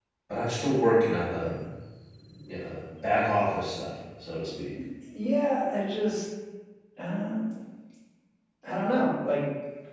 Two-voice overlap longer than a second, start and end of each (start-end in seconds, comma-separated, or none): none